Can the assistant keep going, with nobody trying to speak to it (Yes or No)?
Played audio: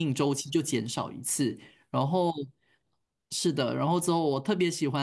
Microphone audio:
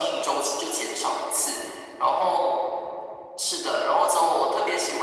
Yes